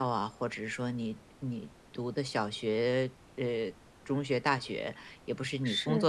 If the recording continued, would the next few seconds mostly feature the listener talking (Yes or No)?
No